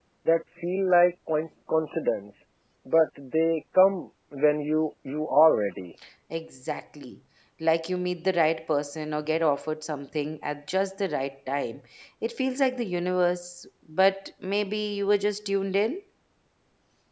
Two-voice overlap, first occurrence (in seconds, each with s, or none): none